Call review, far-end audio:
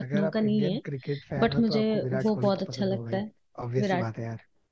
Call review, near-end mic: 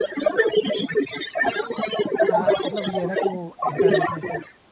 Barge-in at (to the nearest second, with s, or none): 2 s